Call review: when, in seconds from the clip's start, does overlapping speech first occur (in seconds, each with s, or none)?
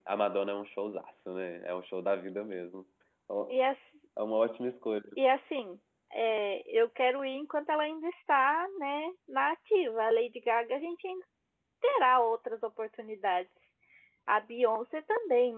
none